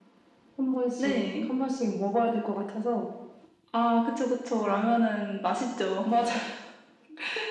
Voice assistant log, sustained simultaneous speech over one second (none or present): none